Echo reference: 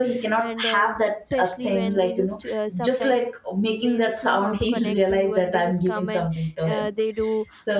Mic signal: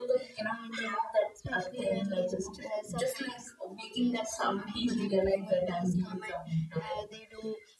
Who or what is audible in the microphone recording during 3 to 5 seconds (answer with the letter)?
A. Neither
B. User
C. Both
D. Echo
D